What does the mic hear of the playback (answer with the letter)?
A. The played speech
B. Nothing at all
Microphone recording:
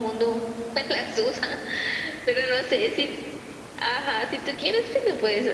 A